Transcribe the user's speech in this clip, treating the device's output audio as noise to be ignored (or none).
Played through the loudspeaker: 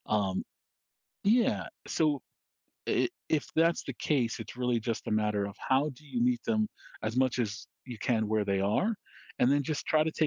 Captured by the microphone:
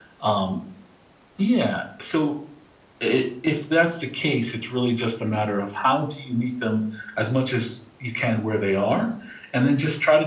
none